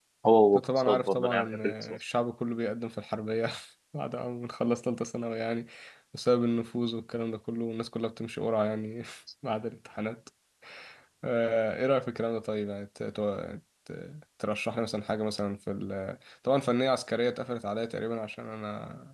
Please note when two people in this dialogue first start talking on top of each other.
0.6 s

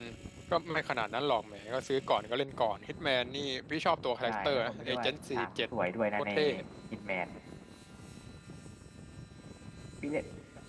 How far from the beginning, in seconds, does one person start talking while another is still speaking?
4.3 s

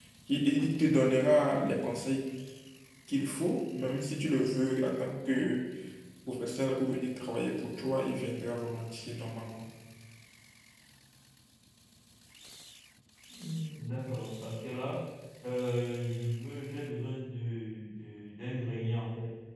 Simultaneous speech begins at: none

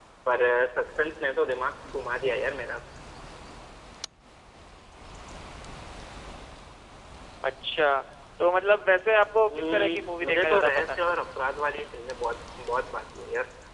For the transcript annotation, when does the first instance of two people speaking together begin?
9.4 s

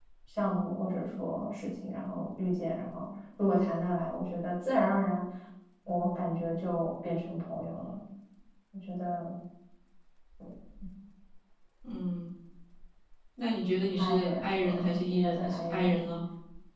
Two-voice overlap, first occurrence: 14.0 s

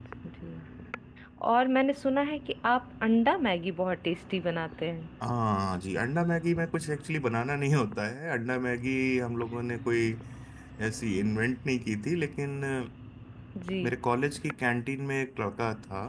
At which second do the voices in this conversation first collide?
none

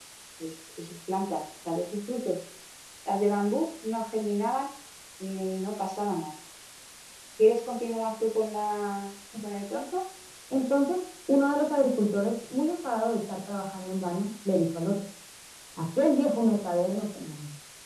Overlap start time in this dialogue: none

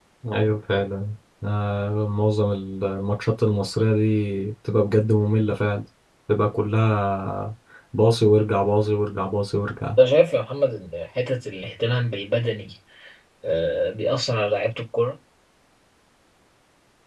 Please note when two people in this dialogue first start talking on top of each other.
none

